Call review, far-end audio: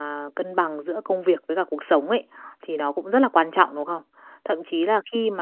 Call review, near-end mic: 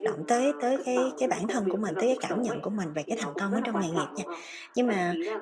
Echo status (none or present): present